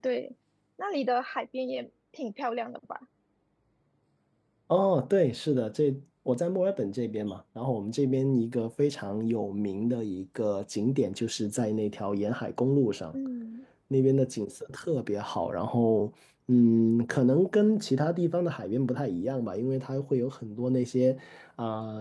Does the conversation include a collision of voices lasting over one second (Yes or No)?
No